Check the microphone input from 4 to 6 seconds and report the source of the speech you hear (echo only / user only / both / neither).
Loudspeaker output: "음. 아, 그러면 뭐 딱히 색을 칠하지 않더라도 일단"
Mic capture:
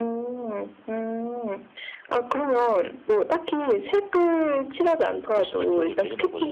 both